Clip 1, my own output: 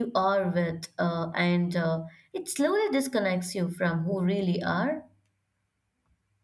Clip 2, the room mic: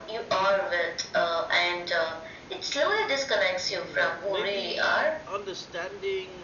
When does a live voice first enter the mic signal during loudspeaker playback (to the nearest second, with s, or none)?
4 s